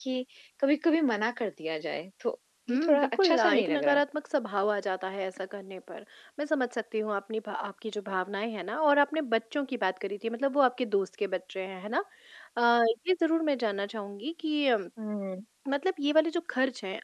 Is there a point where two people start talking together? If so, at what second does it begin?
2.7 s

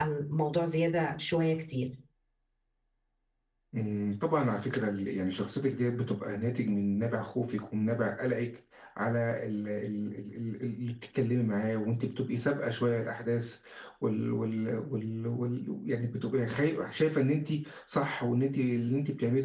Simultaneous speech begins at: none

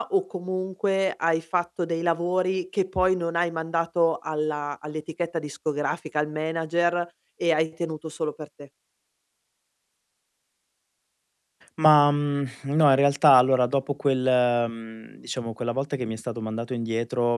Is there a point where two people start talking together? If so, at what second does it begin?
none

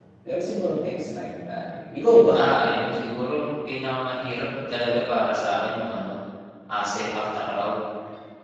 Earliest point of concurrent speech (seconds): none

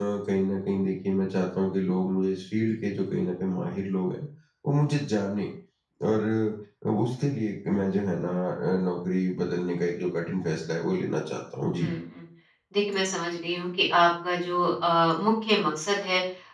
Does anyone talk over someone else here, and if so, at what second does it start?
none

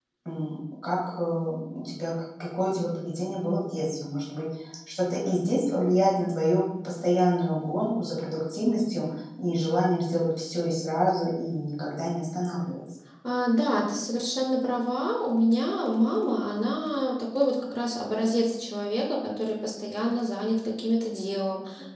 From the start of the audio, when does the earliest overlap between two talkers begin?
none

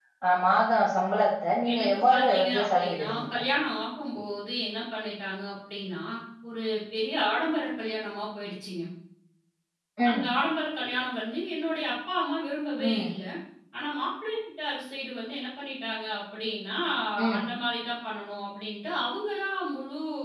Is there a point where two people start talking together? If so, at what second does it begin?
1.7 s

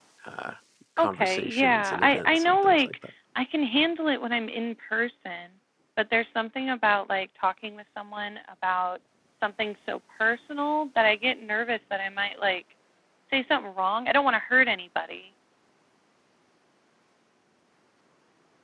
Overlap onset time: 1.0 s

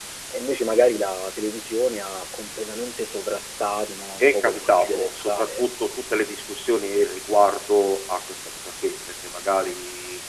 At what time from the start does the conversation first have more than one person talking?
4.2 s

